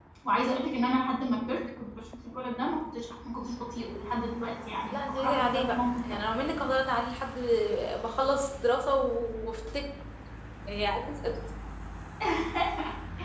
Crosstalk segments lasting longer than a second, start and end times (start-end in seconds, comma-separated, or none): 4.9-6.2